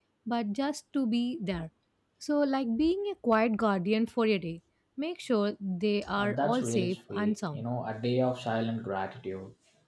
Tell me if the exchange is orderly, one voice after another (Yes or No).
No